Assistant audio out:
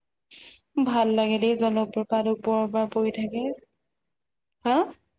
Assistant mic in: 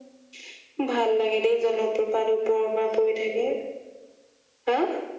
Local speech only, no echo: none

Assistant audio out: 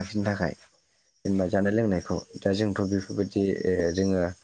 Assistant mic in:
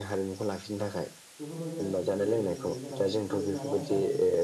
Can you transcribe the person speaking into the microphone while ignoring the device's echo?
बेफोरबायदि आरोखि जेरै जोङो जेराव फु माबा हिसाबै

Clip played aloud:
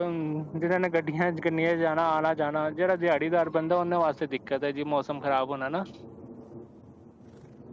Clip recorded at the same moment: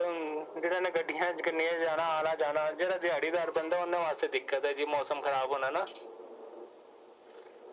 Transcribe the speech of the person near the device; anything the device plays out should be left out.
none

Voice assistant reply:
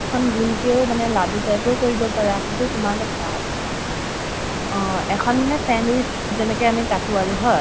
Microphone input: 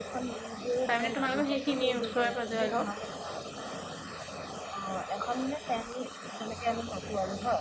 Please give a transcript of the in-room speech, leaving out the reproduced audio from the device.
তাৰ মানে তোমালোকৰ সেইখিনিয়ে, ওচৰে- পাজৰে অলপ।

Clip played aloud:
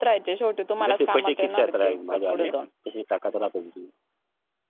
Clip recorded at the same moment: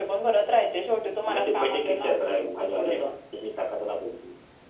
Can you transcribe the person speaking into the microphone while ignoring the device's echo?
none

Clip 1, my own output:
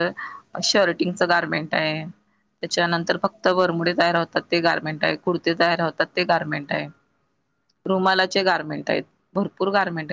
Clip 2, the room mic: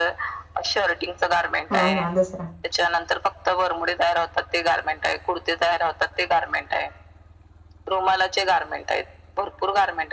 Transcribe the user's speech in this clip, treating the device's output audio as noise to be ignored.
हा हा दुसरा

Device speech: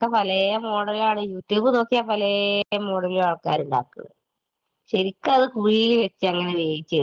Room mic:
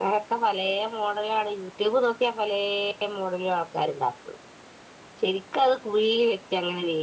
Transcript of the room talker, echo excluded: none

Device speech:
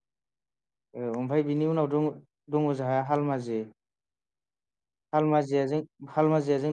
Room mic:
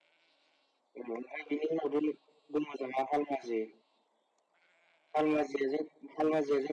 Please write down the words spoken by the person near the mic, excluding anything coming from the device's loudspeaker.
none

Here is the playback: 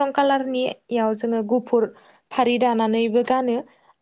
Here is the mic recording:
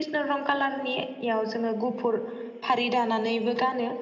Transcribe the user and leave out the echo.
none

